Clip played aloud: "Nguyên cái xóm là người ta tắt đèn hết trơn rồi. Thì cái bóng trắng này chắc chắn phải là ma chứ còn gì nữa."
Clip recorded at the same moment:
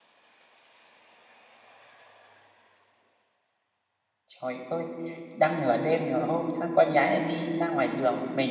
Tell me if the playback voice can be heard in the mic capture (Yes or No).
No